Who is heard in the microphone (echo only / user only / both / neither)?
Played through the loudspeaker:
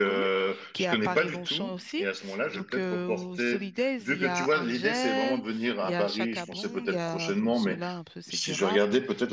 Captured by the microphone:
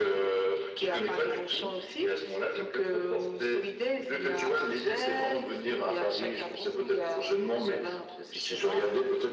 echo only